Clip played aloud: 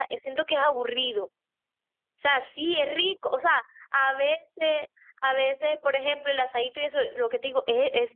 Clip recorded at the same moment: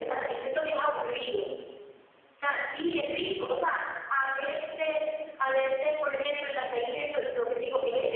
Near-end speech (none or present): present